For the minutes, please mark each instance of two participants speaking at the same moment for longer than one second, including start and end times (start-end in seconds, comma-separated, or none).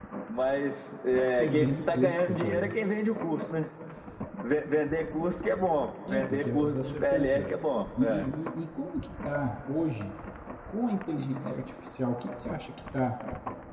1.4-2.7, 6.1-7.6